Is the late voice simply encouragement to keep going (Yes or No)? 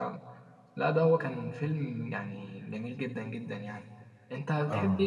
Yes